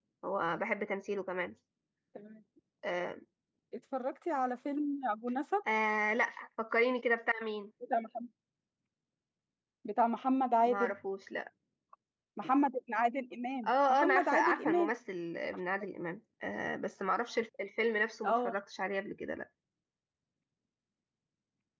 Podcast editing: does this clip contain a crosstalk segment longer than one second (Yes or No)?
Yes